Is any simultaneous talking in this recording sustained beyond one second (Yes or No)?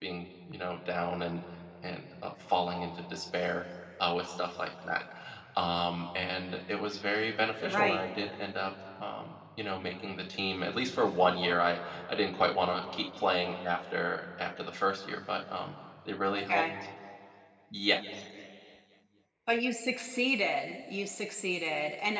No